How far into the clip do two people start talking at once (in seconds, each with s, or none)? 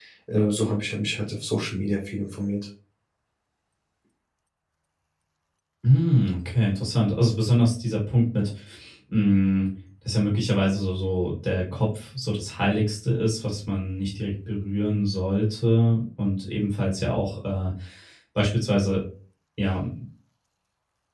none